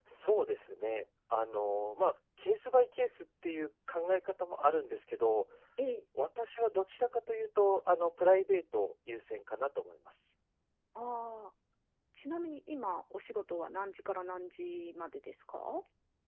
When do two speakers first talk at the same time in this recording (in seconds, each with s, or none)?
none